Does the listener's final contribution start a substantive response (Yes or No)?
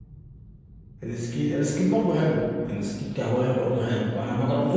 No